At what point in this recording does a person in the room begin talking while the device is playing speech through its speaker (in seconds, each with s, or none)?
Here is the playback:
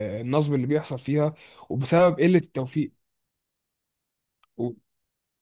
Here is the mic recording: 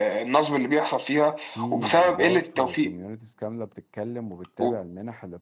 1.5 s